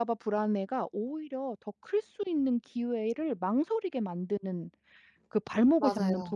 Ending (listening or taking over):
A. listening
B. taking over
A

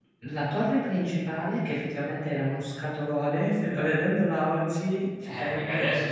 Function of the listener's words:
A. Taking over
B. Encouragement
A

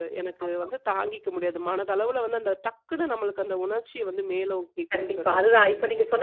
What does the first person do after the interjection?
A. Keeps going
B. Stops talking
B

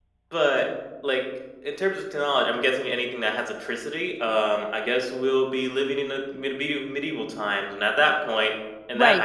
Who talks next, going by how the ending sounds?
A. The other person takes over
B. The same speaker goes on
A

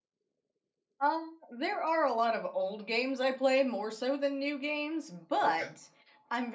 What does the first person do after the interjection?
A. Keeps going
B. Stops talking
A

